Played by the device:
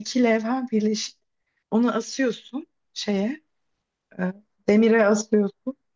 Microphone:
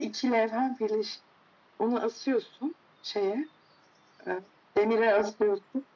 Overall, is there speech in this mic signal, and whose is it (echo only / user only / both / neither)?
echo only